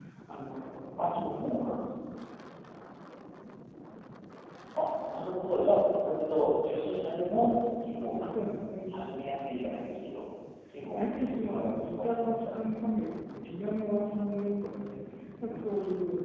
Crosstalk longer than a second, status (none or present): present